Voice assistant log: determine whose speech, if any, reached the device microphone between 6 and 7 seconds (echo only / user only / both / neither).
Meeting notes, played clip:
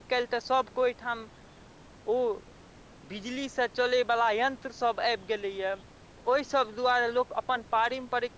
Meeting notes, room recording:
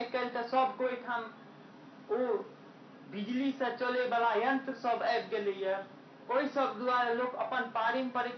echo only